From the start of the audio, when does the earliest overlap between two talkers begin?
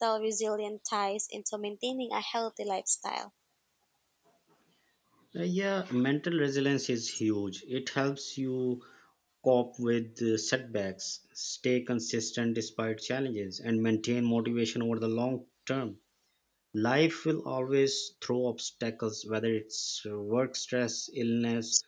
none

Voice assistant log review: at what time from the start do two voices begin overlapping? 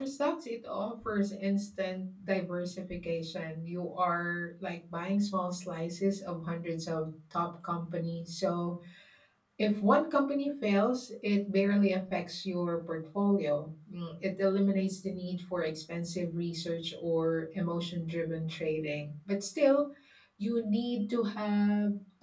none

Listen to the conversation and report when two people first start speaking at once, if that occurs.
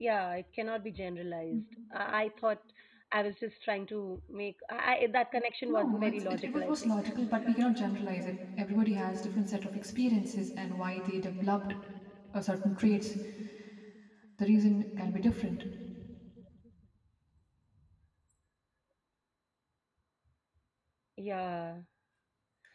5.7 s

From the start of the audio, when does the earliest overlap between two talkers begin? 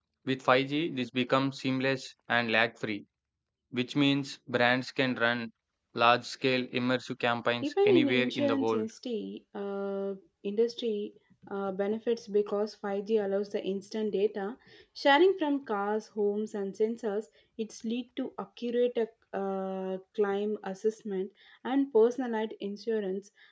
7.6 s

